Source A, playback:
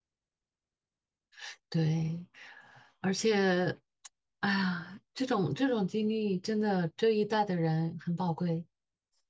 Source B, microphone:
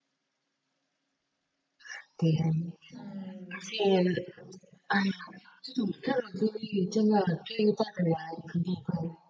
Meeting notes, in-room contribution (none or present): present